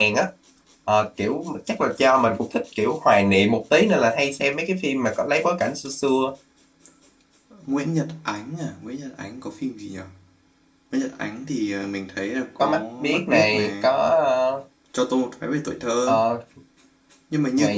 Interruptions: present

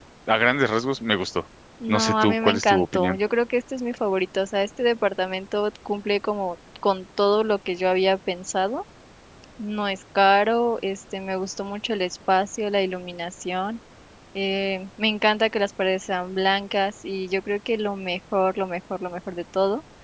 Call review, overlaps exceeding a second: present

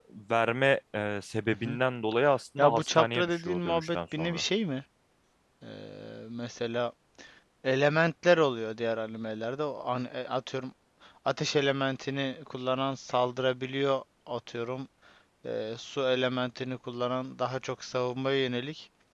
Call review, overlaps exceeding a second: present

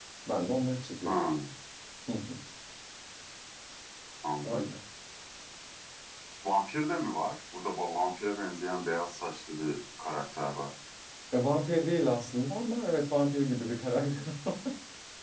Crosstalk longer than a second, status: none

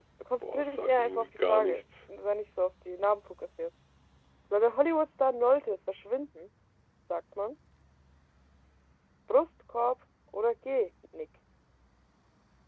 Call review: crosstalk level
present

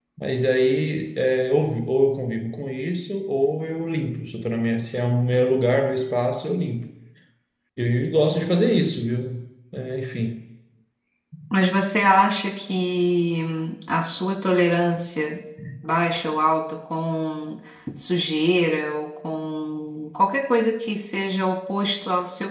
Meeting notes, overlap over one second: none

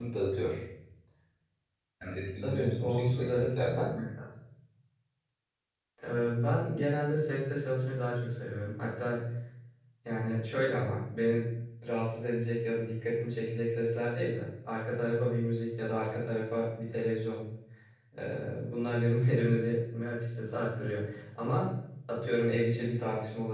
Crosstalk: present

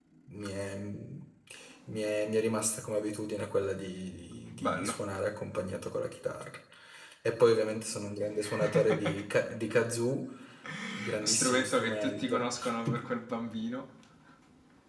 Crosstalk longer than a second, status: present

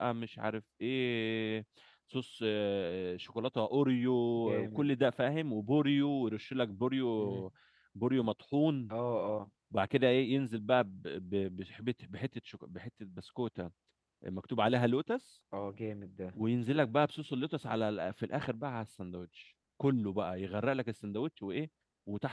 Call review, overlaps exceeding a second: none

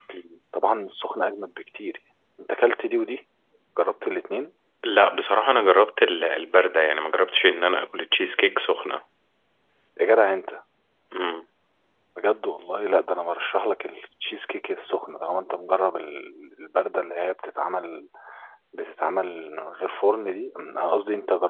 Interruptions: none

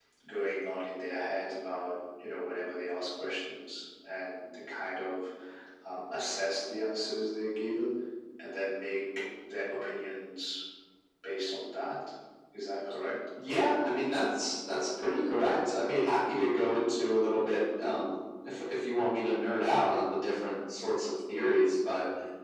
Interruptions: none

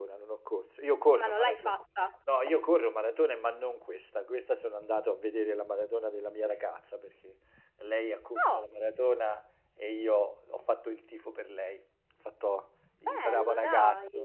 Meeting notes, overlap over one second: present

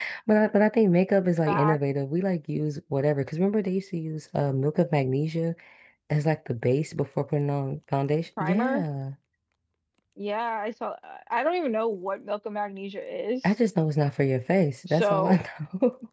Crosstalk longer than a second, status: none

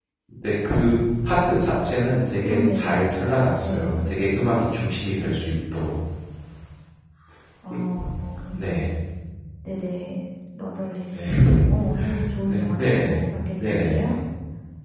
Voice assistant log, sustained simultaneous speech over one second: present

